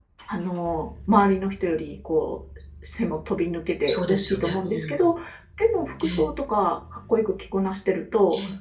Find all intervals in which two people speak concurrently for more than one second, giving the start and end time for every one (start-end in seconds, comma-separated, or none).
3.9-5.1